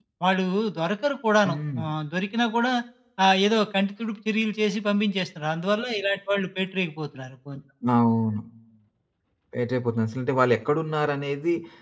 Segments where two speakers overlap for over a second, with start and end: none

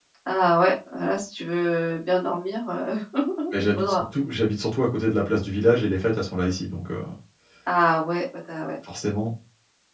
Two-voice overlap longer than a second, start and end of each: none

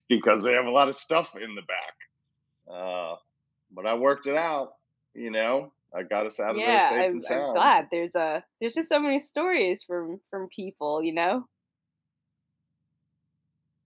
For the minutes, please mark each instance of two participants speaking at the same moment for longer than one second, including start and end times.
6.5-7.7

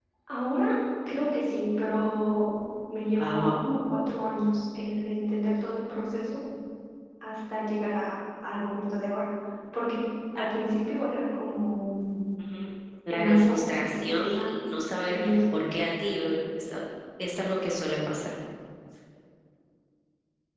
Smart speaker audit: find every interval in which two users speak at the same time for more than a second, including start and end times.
13.1-14.5

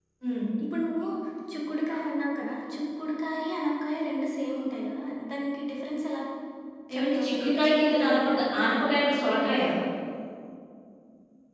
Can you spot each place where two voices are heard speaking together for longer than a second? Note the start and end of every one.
7.0-9.2

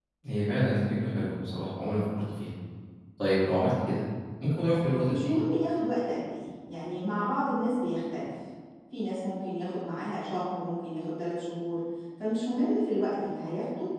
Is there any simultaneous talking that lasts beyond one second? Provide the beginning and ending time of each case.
none

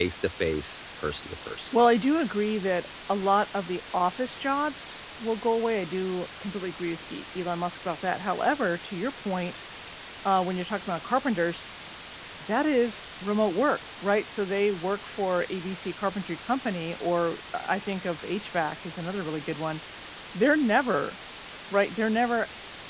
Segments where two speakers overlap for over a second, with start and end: none

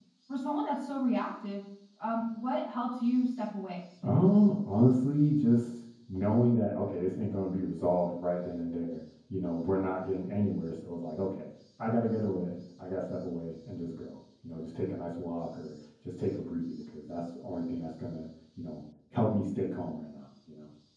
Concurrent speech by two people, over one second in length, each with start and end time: none

